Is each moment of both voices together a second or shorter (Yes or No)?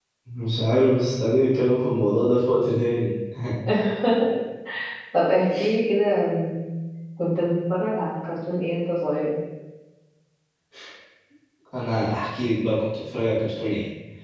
Yes